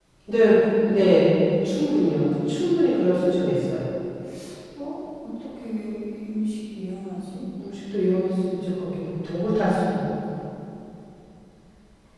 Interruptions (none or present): none